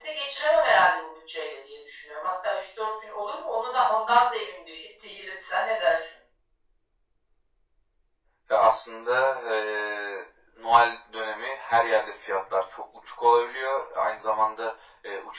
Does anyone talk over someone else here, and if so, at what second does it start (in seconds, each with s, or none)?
none